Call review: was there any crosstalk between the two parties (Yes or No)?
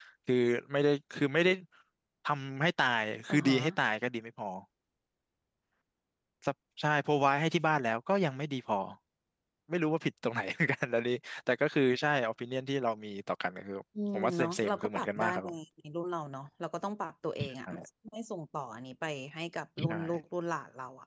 Yes